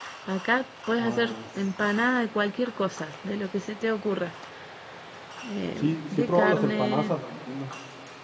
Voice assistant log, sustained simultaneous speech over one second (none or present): present